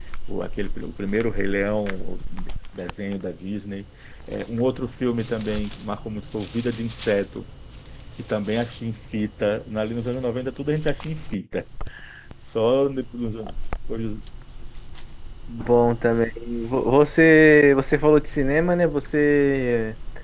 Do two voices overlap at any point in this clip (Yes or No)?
No